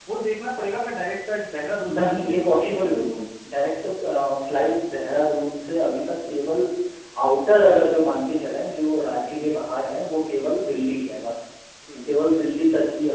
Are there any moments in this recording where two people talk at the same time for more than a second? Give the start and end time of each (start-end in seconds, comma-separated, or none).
2.0-3.2